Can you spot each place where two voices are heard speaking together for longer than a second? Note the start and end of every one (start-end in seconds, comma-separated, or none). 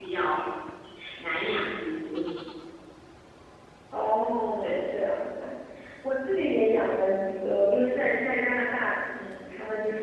none